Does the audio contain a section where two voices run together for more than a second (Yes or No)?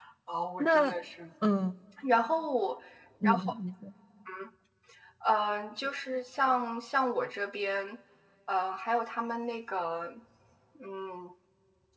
No